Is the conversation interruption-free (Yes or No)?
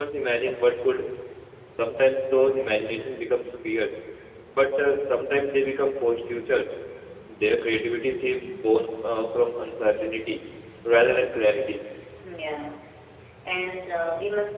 Yes